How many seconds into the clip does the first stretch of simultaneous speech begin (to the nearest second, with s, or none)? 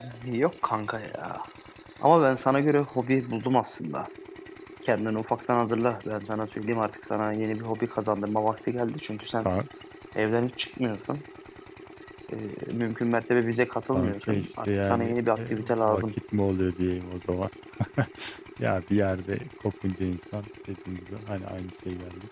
14 s